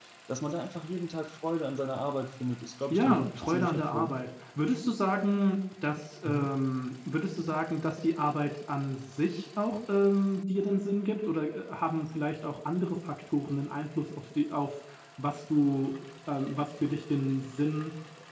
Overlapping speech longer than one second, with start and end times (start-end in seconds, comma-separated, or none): 2.9-4.2